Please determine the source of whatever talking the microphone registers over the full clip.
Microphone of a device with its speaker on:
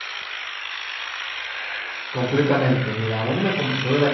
user only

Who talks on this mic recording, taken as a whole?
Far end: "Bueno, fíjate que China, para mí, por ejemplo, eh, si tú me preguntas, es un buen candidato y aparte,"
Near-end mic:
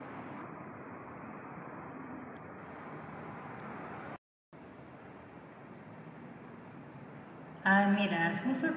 user only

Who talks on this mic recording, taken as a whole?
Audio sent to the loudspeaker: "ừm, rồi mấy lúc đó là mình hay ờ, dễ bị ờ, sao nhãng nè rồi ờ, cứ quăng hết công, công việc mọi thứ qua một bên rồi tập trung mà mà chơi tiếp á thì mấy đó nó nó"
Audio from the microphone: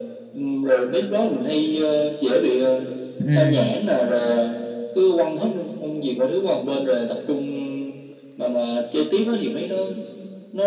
both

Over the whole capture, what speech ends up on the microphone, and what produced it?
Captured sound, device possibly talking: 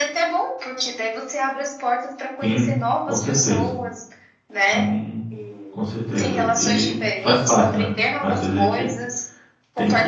both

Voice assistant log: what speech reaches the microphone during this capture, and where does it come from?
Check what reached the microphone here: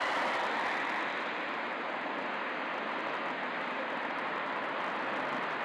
neither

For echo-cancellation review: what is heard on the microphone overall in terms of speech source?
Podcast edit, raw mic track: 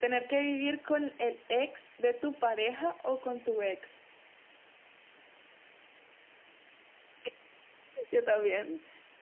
echo only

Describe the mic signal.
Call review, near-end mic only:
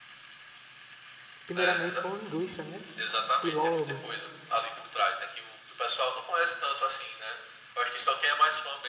both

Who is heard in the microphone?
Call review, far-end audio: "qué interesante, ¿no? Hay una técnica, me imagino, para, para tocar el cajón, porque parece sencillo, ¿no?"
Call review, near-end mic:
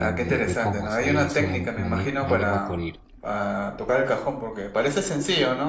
both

